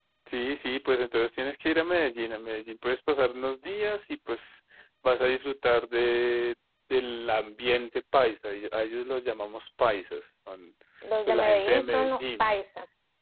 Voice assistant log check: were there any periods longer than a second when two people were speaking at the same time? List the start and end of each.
11.3-12.5

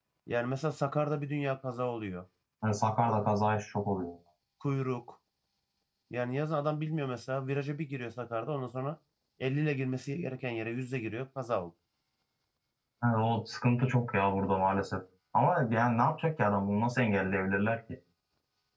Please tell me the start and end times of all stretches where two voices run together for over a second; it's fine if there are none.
none

